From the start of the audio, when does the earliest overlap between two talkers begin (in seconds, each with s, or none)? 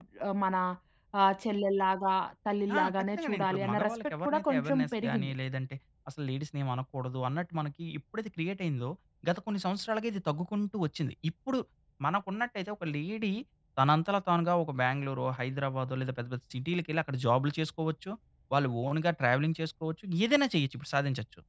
2.7 s